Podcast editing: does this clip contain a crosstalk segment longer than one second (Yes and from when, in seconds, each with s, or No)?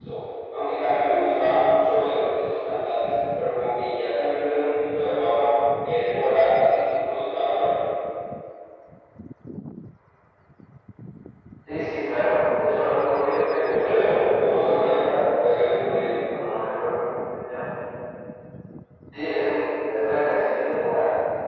Yes, from 13.4 s